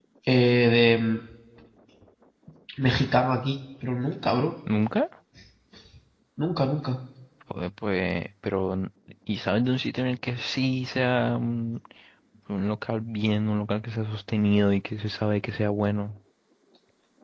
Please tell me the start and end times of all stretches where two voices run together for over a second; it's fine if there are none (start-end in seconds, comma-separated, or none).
none